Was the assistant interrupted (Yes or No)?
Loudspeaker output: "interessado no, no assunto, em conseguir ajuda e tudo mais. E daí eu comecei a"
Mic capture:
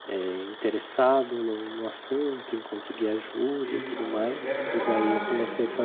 Yes